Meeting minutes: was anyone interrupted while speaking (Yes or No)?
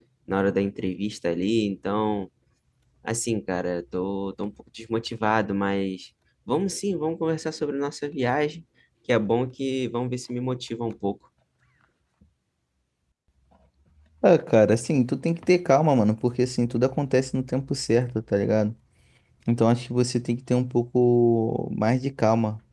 No